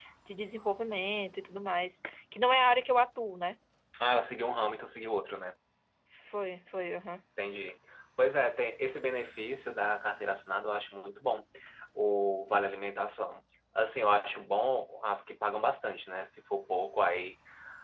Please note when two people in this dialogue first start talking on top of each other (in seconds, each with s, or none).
none